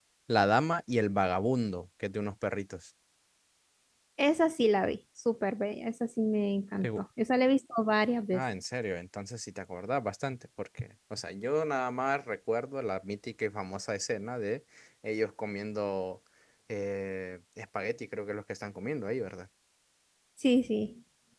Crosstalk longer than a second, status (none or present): none